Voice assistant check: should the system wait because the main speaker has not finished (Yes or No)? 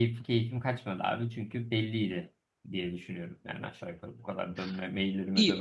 No